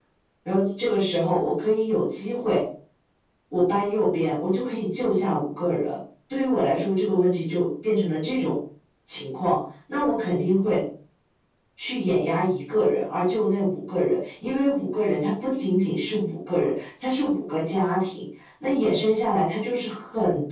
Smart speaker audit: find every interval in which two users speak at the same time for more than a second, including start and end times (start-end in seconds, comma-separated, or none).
none